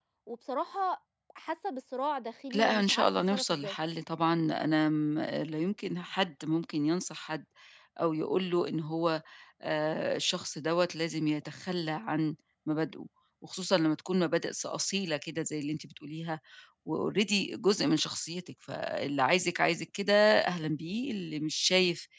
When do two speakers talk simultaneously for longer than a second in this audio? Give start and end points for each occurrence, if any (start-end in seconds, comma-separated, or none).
2.5-3.8